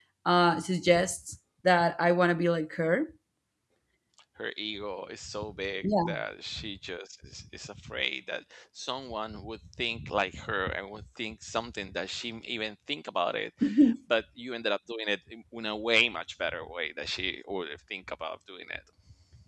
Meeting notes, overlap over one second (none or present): none